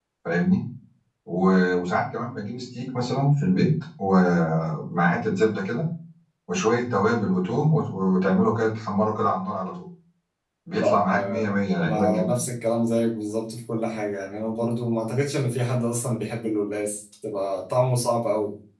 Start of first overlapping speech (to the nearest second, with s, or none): 11 s